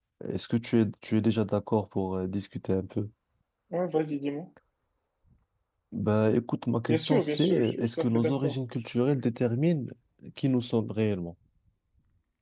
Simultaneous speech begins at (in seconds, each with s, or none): 6.9 s